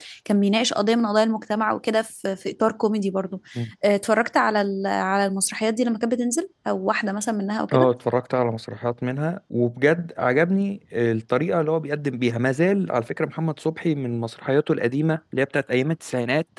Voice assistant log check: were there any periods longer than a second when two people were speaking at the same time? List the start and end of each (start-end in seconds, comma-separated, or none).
none